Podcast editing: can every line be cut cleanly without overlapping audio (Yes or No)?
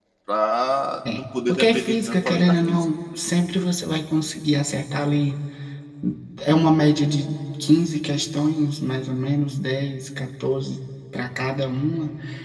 No